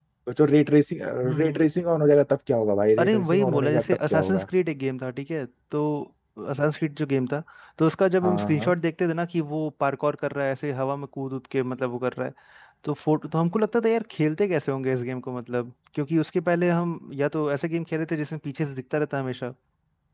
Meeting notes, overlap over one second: present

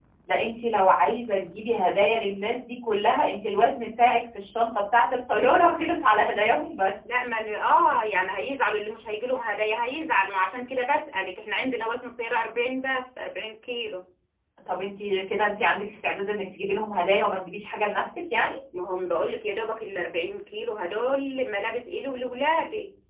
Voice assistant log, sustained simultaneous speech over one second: none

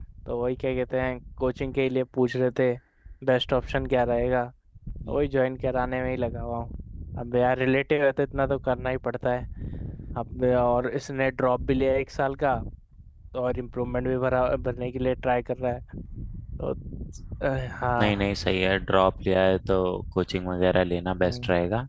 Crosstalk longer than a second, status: none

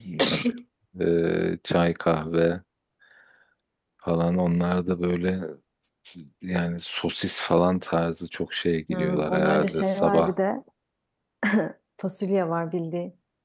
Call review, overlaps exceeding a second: present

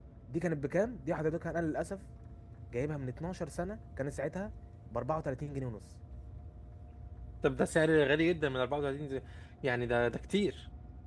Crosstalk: none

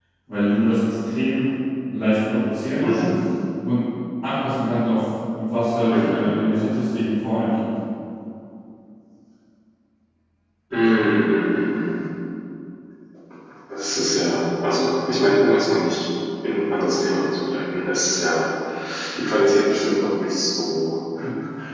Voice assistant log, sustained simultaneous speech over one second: none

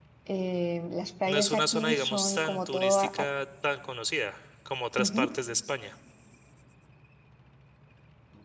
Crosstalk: present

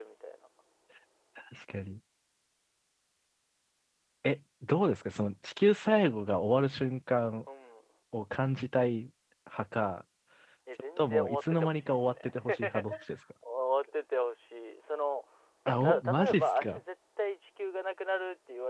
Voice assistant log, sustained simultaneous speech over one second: present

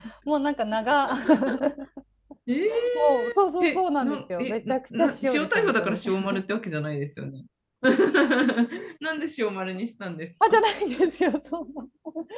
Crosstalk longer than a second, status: present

